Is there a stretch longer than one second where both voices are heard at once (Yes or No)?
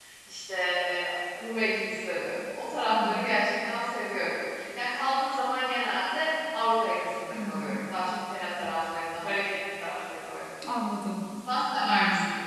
No